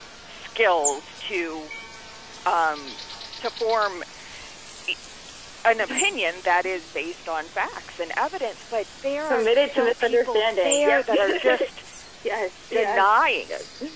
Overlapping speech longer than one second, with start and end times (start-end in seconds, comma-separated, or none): 9.3-11.7